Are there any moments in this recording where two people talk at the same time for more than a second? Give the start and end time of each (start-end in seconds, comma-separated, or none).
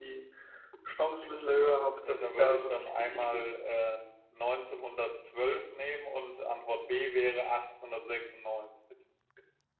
1.6-3.4